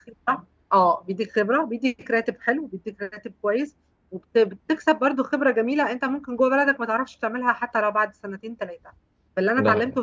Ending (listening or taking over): listening